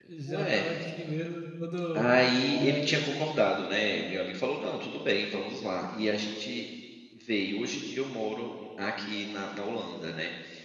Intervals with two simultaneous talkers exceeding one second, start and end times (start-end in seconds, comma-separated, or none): none